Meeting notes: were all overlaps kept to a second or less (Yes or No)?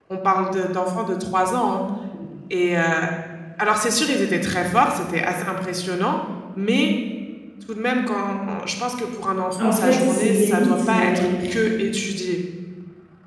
No